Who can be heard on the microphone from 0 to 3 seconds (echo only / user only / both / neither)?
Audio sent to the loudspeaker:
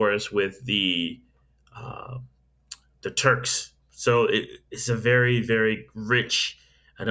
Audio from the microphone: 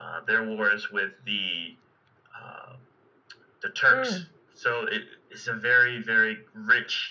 echo only